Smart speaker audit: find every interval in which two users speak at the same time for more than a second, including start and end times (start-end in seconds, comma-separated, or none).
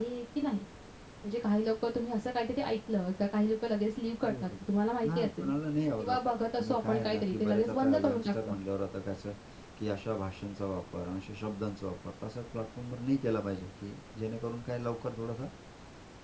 6.6-8.5